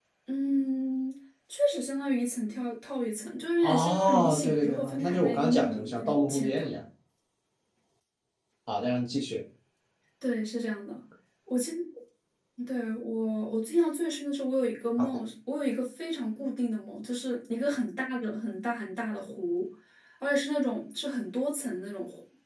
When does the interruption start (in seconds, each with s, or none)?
3.6 s